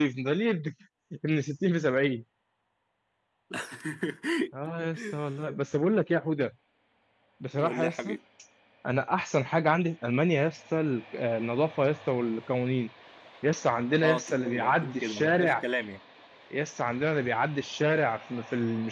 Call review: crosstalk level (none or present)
present